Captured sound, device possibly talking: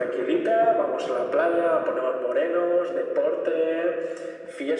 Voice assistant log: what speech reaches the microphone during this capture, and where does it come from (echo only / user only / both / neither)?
echo only